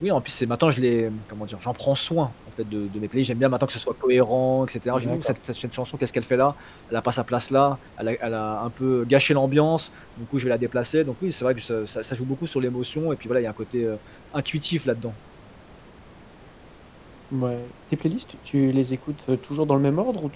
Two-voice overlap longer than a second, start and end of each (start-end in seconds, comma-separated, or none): none